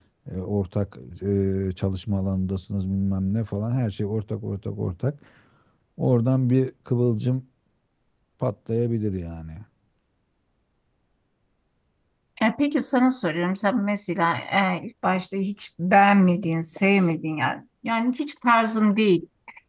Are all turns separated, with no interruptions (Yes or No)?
Yes